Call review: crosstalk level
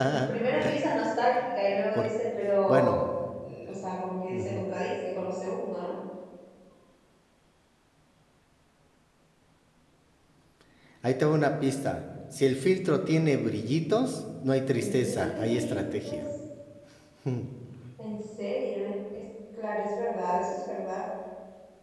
present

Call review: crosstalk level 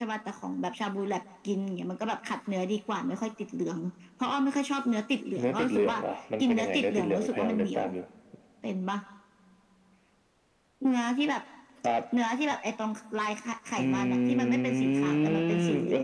present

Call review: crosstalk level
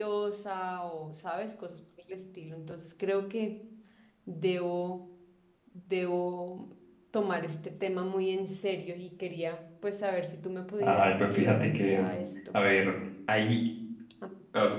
present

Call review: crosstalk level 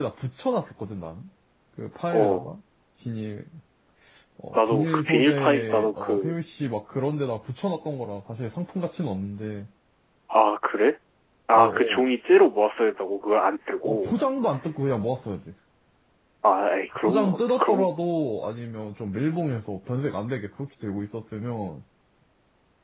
present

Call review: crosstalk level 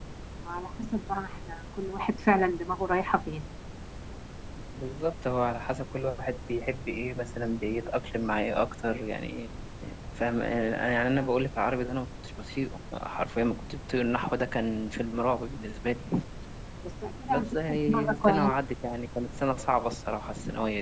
present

